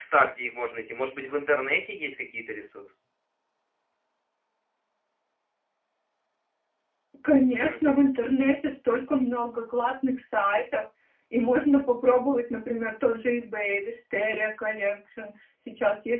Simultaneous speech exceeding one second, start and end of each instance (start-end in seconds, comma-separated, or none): none